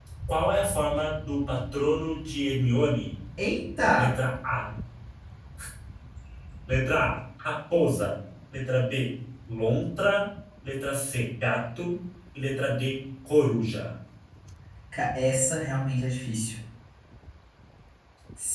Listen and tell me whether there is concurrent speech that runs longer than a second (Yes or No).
No